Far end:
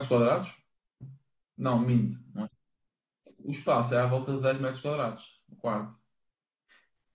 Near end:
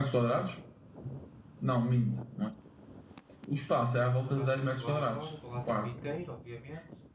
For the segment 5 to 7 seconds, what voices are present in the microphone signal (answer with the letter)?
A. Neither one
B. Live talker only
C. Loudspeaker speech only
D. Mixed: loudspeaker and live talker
D